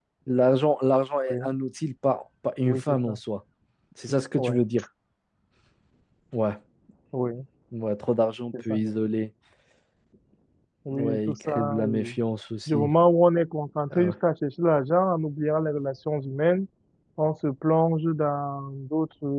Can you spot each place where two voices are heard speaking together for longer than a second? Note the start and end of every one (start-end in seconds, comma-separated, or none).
10.9-12.2